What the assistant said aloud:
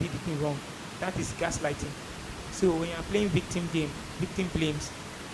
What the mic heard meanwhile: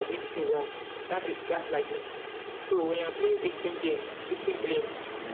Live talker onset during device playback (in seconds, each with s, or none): none